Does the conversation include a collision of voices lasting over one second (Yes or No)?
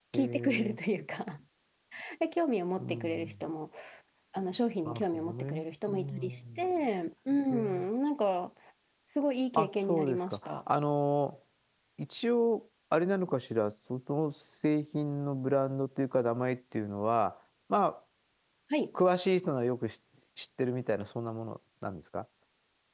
Yes